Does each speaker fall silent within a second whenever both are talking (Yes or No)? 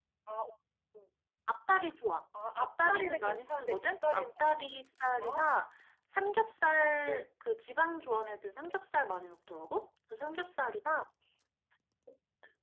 No